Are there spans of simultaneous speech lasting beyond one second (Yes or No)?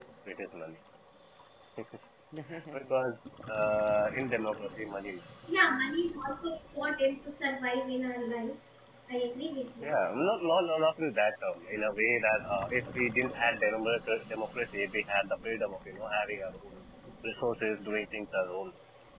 No